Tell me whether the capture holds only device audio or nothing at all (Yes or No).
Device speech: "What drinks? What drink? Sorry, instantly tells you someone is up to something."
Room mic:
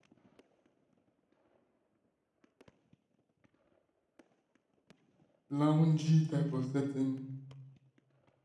No